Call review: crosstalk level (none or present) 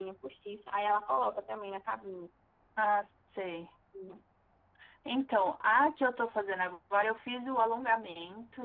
none